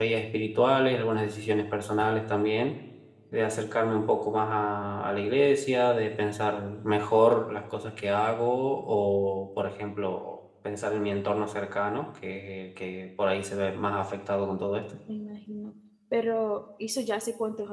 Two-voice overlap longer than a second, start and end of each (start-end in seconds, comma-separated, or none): none